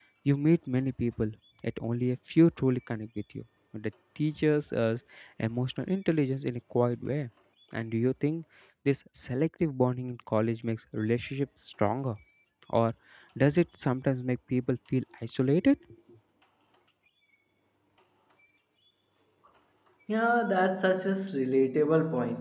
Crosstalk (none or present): none